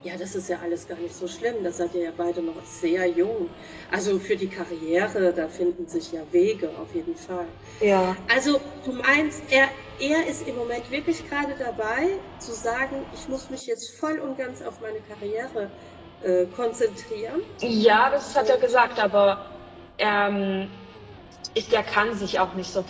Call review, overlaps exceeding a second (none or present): none